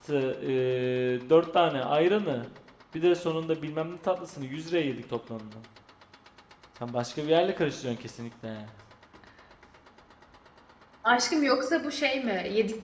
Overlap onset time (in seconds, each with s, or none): none